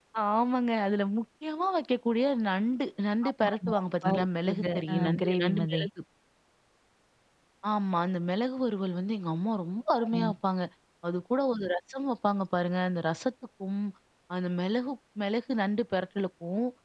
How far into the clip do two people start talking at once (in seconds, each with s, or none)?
3.3 s